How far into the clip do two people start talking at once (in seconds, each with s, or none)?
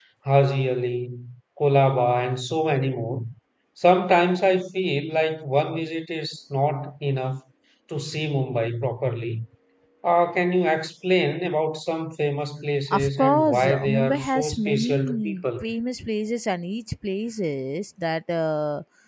12.9 s